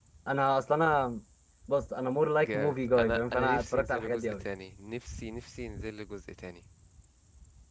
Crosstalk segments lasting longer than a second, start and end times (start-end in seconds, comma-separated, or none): 2.4-4.4